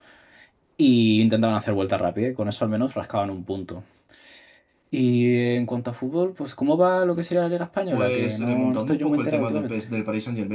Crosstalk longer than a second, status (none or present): present